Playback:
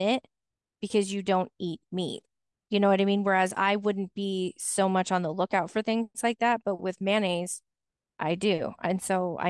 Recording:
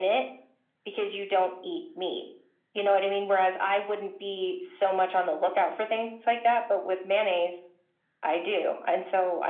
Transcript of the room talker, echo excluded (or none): none